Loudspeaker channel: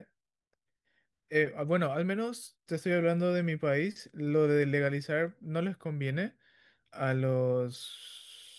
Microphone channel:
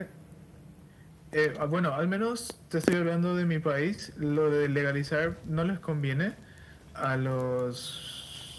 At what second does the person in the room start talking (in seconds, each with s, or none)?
none